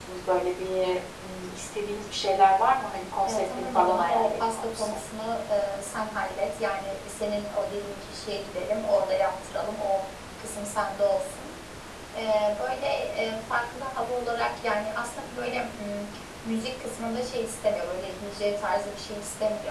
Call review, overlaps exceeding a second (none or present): present